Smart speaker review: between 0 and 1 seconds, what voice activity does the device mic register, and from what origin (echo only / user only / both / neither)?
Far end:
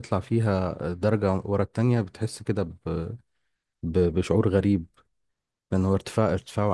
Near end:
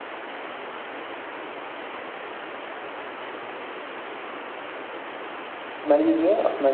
neither